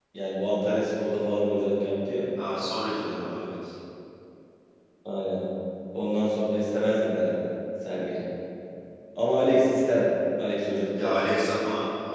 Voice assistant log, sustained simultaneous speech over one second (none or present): none